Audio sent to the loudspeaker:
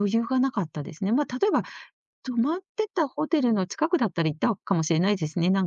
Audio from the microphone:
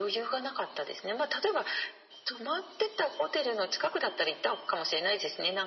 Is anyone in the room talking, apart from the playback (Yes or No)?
No